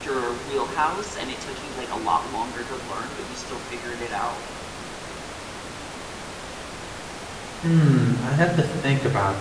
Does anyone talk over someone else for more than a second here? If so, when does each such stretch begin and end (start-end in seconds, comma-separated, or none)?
none